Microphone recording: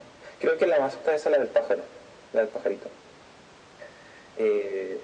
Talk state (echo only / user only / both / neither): echo only